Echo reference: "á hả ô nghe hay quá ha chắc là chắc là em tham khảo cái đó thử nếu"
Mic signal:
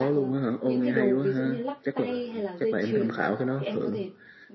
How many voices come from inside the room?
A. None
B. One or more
B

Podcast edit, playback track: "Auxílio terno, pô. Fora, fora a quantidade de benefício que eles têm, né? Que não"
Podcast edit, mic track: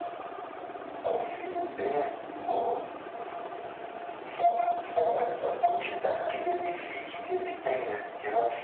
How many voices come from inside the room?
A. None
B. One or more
A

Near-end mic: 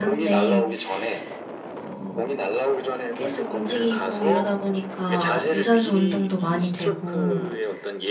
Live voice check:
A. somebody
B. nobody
A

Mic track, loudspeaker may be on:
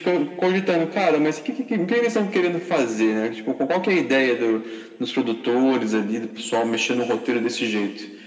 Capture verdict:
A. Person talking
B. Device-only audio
B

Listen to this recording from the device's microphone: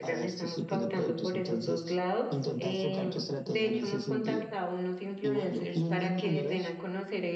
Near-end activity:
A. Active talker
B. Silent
A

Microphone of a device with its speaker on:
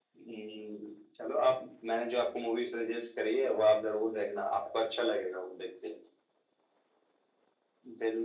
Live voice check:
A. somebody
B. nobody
B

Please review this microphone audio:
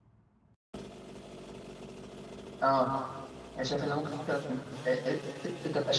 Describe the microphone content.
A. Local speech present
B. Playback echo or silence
A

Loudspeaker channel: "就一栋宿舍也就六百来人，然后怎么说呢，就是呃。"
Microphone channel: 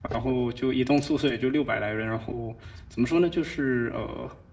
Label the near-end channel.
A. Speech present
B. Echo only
B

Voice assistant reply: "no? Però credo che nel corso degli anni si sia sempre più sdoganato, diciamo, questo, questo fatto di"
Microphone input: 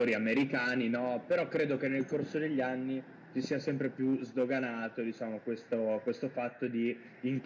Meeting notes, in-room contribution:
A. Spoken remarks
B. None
B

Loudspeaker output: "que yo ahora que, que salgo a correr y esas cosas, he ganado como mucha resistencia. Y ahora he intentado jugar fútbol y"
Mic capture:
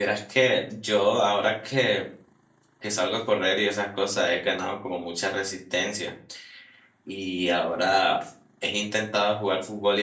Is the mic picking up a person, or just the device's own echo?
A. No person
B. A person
A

